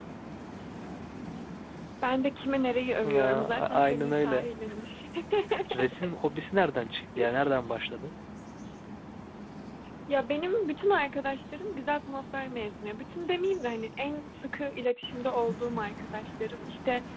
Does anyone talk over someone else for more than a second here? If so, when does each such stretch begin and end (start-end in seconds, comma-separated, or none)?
3.0-4.5